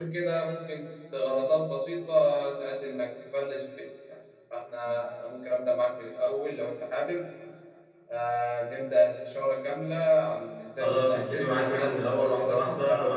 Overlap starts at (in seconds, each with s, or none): 10.8 s